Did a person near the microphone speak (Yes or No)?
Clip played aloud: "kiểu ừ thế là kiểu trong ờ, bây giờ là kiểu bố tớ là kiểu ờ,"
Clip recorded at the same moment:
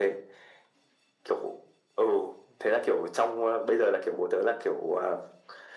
No